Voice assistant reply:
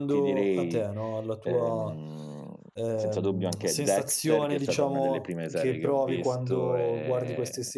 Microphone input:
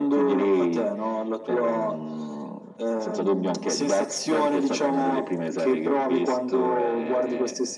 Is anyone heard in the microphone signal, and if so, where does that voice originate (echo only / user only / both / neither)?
echo only